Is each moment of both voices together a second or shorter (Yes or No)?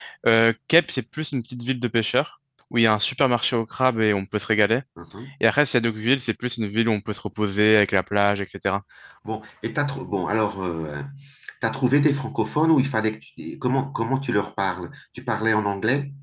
Yes